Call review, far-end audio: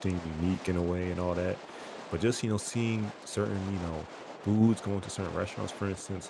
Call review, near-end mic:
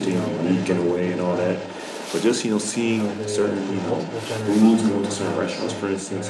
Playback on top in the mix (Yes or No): Yes